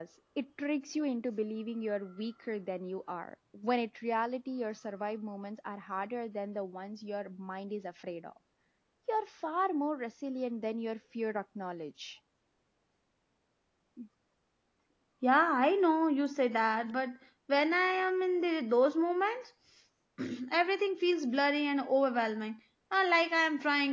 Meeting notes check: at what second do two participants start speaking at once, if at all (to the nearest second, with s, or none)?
none